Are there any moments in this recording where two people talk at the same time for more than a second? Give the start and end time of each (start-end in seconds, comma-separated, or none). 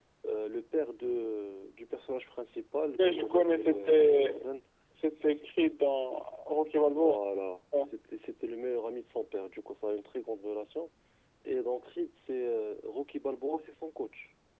3.0-4.4